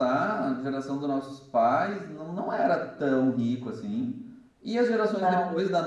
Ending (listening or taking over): listening